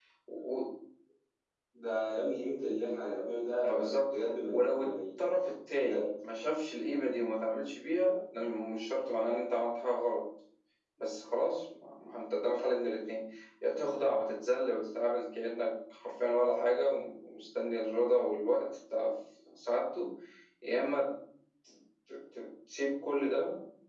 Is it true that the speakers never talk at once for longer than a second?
No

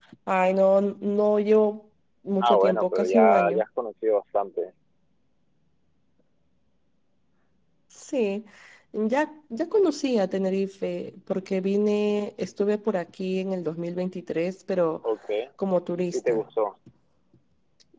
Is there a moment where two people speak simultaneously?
Yes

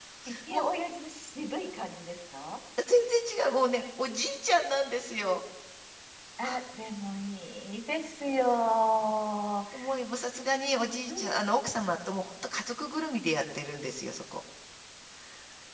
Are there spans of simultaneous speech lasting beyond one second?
No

